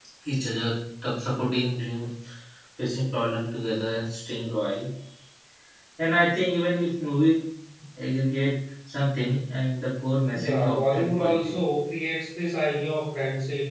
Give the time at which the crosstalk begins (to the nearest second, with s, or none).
10 s